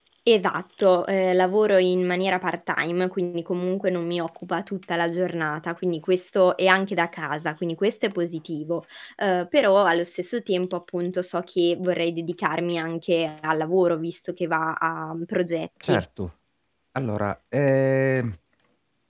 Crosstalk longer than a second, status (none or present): none